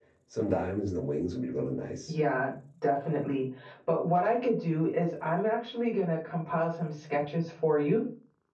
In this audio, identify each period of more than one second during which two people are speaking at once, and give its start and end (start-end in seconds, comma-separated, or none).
none